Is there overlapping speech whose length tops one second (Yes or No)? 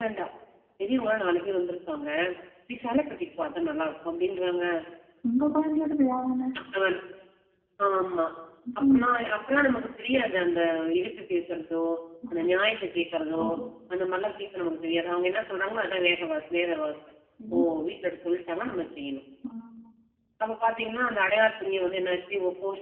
No